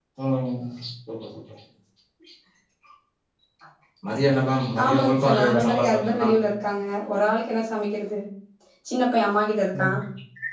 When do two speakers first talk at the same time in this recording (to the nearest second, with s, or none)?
5 s